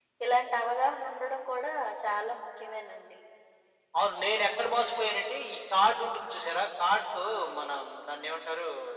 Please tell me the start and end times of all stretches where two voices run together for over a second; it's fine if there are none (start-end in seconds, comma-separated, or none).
none